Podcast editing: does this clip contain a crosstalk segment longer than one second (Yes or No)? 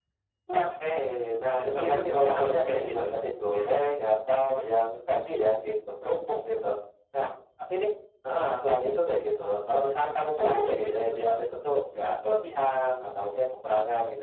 Yes